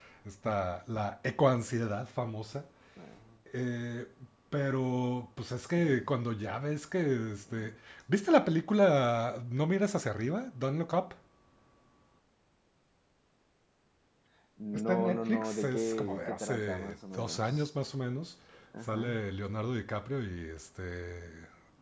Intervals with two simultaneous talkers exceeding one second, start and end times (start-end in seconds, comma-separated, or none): 14.7-17.7